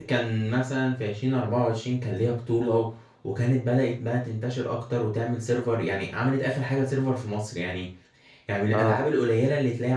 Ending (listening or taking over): listening